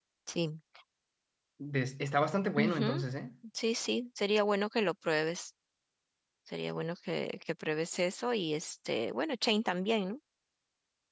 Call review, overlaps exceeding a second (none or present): none